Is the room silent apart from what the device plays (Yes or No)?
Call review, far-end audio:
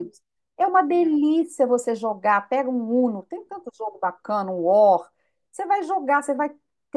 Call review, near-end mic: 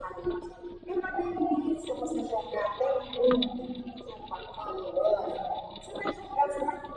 Yes